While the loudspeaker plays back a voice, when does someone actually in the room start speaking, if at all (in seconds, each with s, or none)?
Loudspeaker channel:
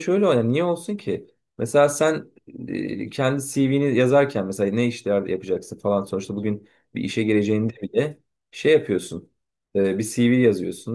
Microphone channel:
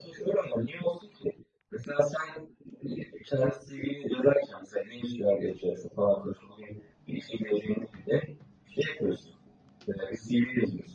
none